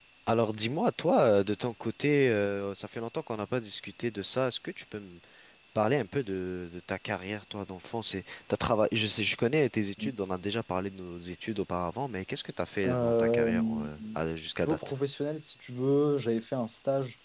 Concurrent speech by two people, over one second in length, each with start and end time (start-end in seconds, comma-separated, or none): 12.8-14.2